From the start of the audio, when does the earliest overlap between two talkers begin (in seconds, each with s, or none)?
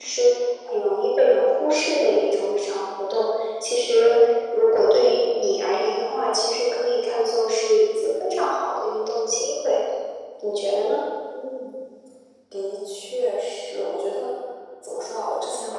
none